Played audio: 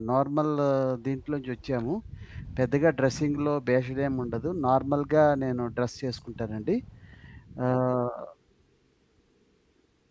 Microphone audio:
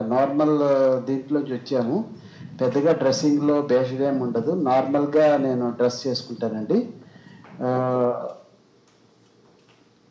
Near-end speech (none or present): none